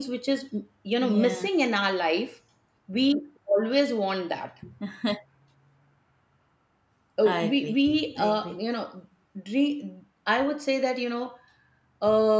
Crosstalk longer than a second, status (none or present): present